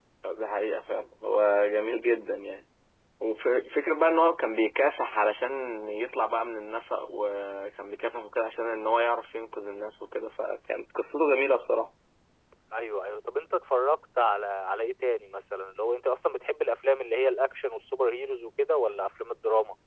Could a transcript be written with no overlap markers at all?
Yes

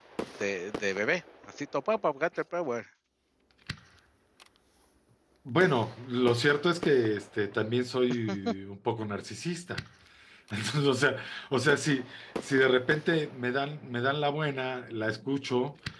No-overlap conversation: Yes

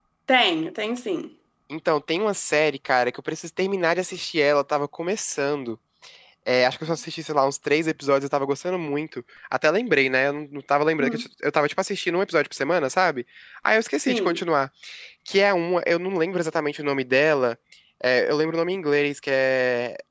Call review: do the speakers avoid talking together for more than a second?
Yes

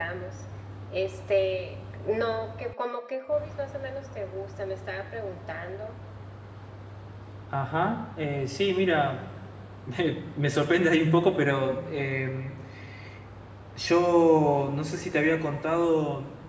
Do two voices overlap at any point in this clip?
No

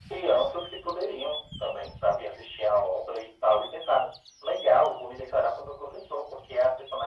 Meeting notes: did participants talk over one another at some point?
No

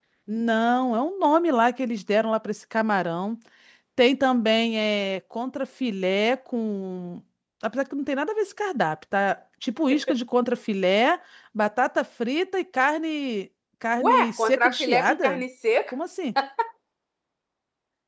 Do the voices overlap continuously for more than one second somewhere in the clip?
Yes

